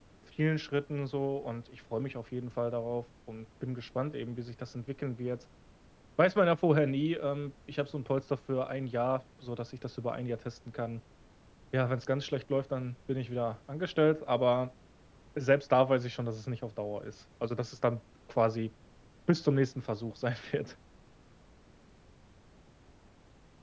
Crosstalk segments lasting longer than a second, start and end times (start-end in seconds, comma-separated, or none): none